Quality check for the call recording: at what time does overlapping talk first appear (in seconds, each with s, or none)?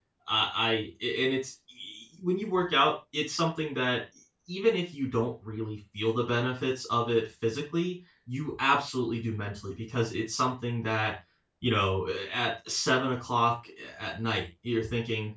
none